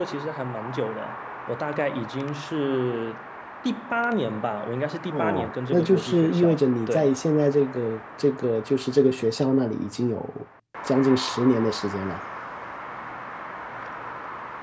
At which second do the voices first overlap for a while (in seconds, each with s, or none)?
5.1 s